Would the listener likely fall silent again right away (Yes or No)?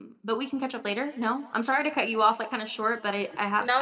No